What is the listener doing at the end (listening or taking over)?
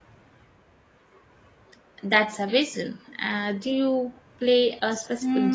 taking over